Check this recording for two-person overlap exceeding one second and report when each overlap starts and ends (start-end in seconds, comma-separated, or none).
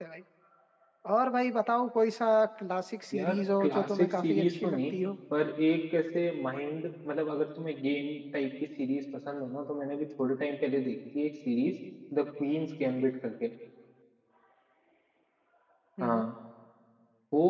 3.1-5.0